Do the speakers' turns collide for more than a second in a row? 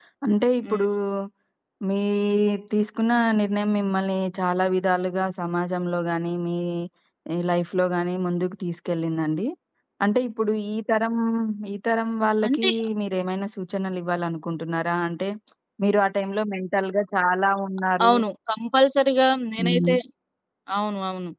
No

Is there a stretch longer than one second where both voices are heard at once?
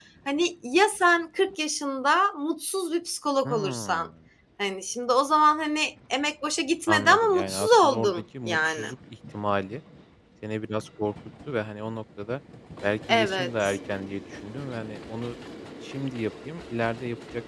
Yes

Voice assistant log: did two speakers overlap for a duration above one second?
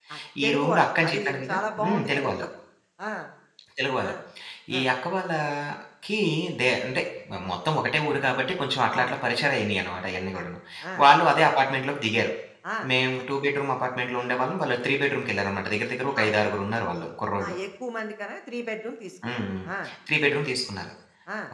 Yes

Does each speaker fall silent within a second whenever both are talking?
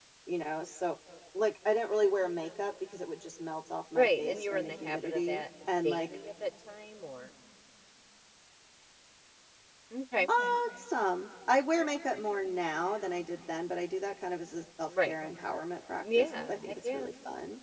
No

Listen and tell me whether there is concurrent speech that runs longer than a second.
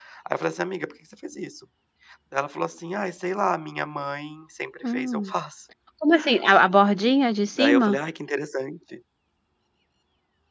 No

